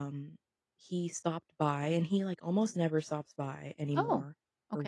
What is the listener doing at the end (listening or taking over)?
listening